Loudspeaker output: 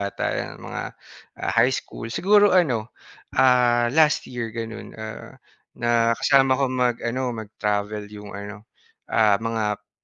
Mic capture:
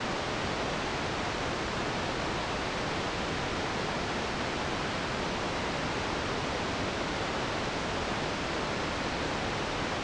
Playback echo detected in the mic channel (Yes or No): No